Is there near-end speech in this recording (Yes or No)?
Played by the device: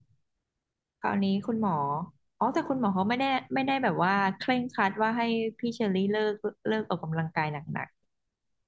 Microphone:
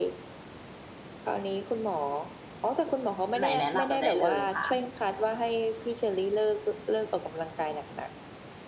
Yes